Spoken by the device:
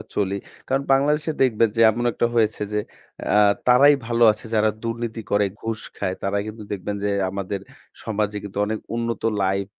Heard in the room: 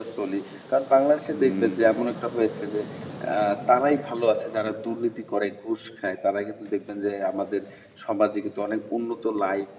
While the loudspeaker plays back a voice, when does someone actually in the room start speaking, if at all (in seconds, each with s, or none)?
1.3 s